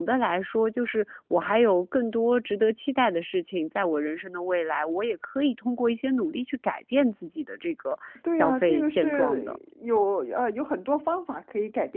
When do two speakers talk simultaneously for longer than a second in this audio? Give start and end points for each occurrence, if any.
8.3-9.6

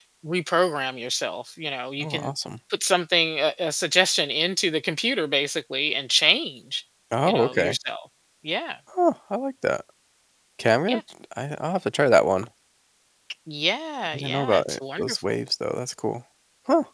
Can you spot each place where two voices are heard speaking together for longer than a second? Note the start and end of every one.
14.1-15.4

